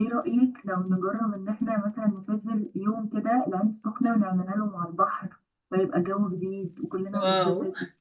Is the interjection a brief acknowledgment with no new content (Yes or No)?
No